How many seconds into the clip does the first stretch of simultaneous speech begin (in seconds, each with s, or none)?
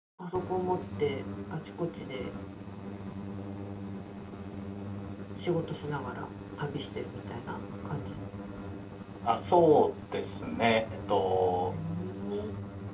none